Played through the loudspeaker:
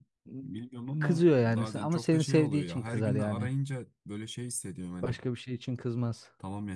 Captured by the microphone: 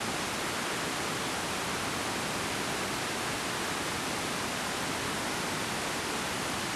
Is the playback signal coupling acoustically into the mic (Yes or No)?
No